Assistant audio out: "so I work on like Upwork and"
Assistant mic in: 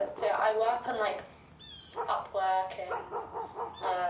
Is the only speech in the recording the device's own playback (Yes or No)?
Yes